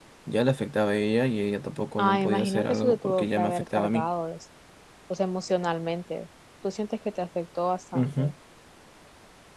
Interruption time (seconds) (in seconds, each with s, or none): 2.0 s